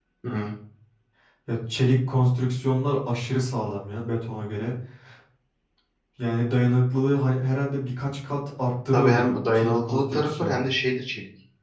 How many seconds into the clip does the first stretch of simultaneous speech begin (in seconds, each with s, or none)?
8.9 s